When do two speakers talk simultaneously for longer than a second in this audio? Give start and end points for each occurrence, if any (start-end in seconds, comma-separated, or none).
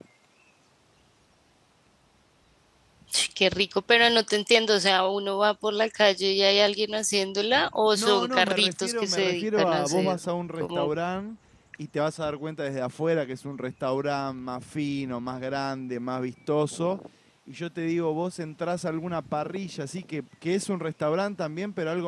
8.0-10.2